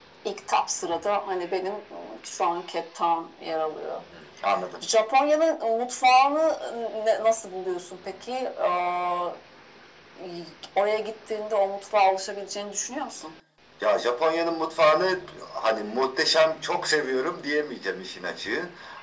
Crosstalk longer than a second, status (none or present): none